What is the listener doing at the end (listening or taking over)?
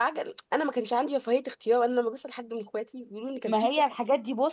taking over